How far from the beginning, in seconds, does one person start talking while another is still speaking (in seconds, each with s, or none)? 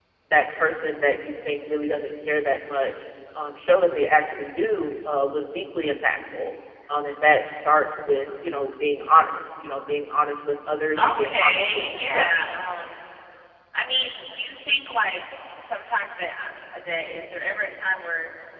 11.0 s